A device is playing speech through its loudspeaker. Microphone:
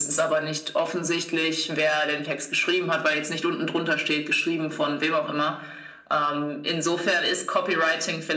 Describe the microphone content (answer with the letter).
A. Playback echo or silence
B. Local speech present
A